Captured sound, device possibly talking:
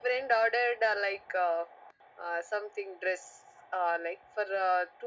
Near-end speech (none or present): none